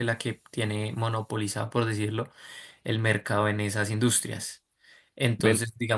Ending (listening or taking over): listening